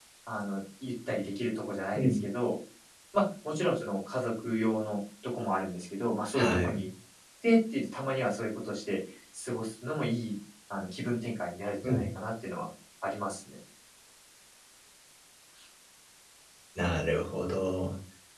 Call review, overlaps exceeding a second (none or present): none